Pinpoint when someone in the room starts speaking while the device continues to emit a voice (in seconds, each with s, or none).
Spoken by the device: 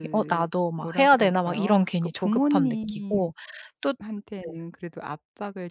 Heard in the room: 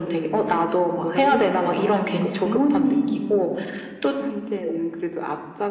1.2 s